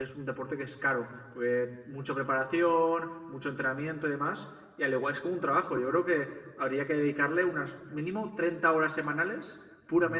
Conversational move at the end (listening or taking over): taking over